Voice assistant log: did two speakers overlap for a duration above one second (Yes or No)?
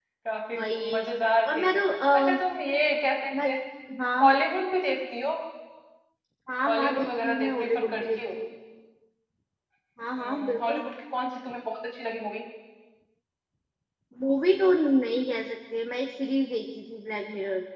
Yes